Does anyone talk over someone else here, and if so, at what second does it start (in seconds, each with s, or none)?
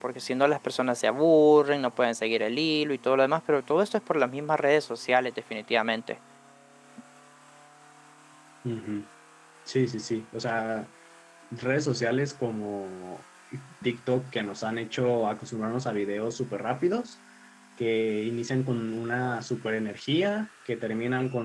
none